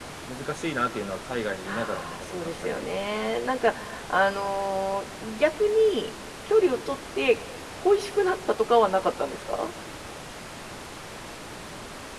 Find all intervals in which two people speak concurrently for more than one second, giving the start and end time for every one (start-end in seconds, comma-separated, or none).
1.6-2.9